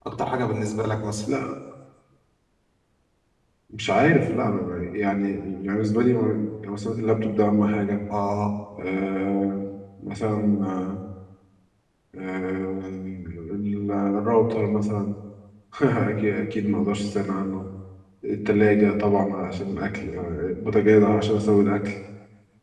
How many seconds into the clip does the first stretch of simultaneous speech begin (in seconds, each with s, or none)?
none